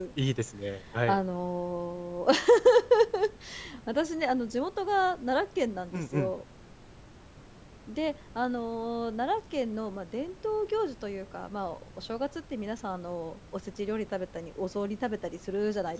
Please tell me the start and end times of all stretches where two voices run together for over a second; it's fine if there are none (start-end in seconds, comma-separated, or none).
none